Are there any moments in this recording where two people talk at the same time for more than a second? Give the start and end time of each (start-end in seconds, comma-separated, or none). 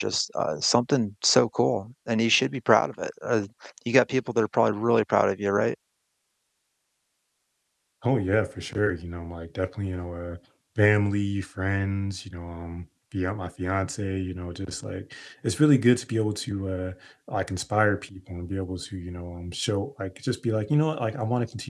none